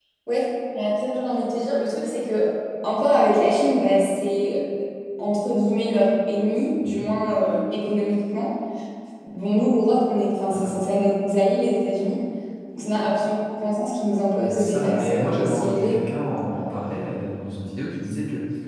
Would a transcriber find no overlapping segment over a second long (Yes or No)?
No